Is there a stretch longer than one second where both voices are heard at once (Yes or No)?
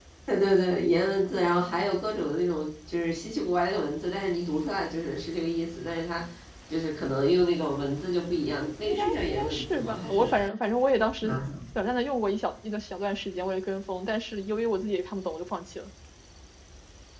Yes